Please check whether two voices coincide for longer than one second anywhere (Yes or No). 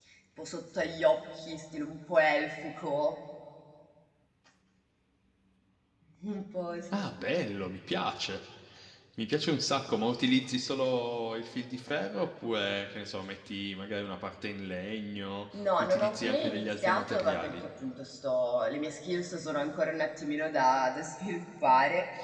Yes